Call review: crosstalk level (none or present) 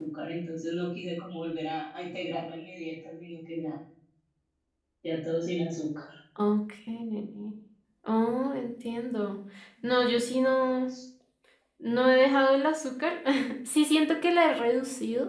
none